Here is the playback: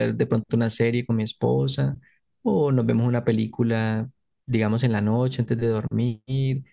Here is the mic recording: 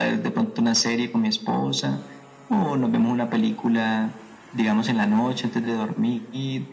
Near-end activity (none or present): none